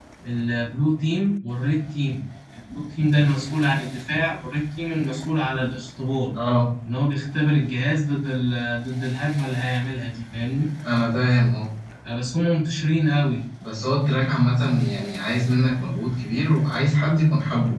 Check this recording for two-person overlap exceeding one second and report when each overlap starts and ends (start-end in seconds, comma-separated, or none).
none